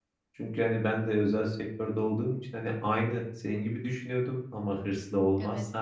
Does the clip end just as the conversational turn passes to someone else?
No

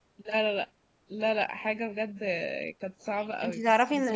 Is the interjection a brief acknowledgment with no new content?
No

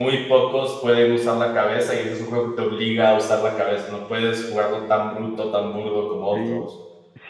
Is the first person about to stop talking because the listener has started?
Yes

